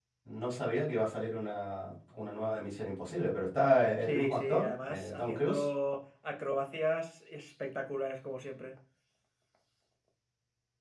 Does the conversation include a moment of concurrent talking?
Yes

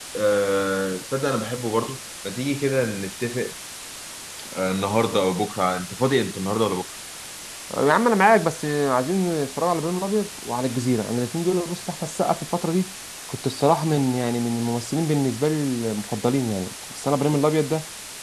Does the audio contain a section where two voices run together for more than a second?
No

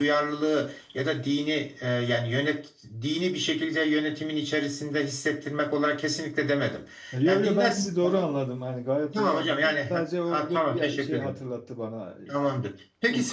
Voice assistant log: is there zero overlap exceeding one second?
No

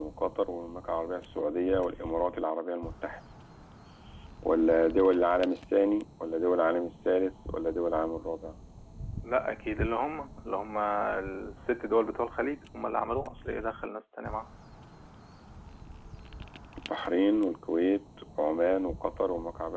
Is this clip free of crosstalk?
Yes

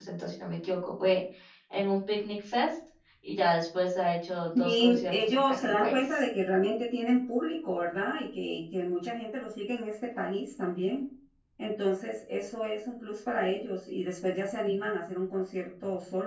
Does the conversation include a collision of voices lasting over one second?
Yes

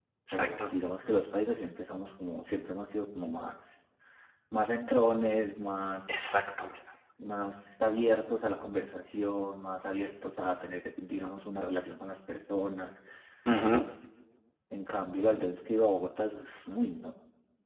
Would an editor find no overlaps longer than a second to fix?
Yes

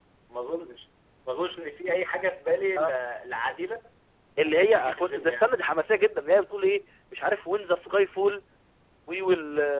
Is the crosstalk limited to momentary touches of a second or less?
No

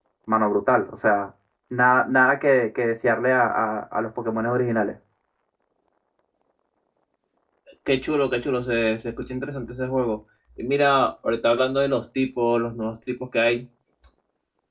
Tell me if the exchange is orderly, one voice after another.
Yes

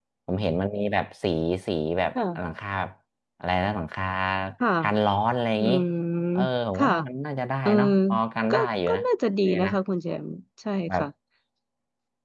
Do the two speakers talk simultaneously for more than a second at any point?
No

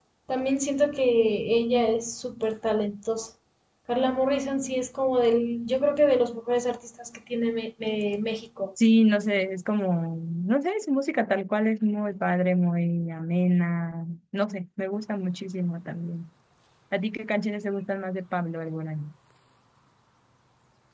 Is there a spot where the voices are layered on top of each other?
No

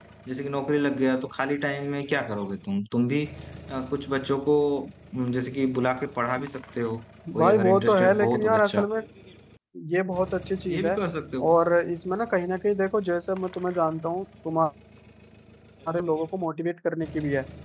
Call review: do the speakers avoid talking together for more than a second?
No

